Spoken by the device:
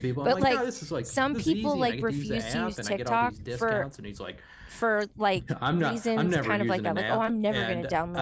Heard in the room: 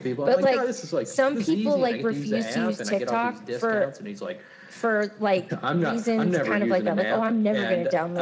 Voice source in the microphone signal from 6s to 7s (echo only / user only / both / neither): echo only